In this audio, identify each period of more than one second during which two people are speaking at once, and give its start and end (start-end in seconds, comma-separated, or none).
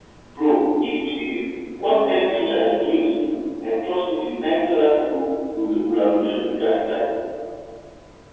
1.8-3.1